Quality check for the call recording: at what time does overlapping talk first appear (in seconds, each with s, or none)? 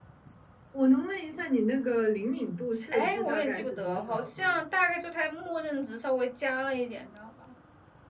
2.9 s